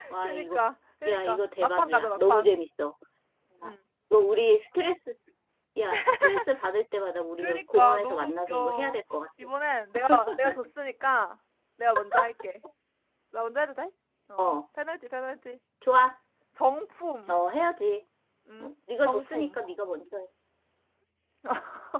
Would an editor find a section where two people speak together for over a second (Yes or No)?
Yes